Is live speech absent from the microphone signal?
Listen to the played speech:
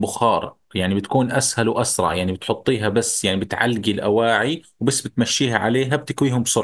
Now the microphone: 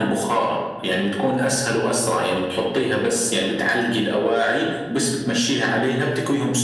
Yes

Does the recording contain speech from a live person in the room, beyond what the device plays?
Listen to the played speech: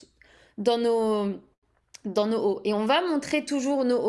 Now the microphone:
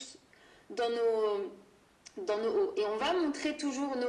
No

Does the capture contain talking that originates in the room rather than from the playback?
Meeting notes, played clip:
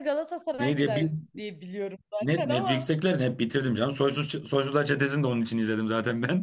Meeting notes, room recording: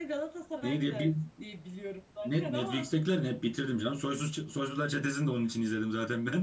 No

